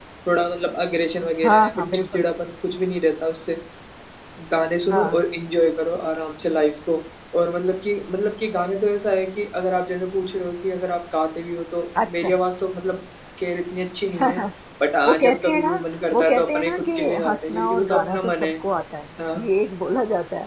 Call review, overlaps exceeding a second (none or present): present